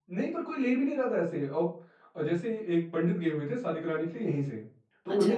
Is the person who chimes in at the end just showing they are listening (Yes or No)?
Yes